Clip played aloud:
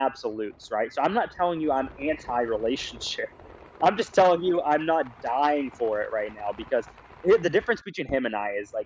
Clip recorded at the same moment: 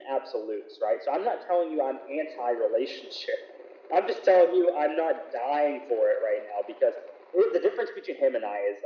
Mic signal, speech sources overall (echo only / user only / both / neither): echo only